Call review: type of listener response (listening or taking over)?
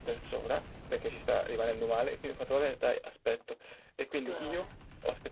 listening